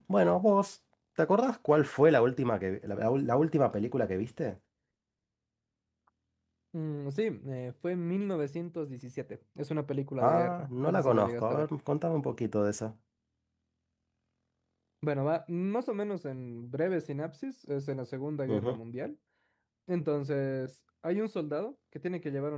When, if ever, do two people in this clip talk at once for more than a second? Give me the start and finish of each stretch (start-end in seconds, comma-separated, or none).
10.2-11.7